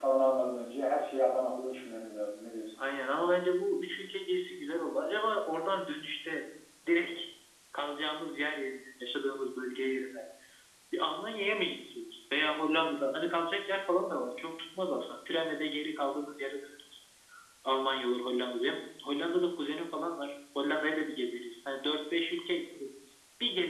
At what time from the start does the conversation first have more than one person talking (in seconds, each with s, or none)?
none